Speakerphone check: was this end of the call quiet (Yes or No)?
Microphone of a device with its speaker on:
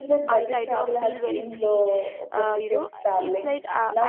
No